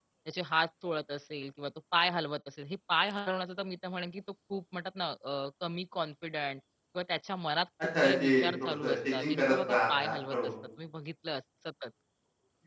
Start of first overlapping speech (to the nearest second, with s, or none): 8 s